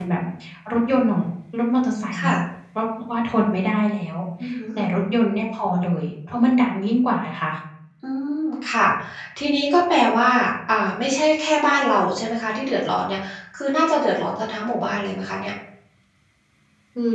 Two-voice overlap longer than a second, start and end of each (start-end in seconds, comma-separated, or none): none